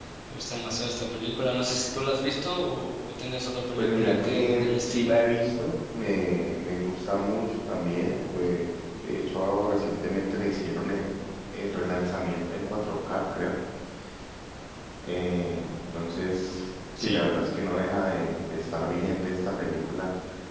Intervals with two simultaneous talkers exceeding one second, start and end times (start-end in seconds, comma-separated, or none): 3.8-5.2